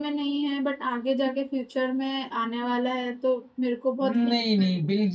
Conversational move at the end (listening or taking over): taking over